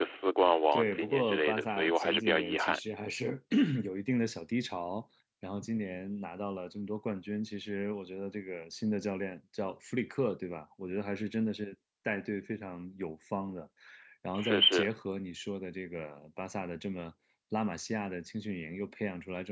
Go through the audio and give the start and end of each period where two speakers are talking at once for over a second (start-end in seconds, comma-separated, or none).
0.7-2.8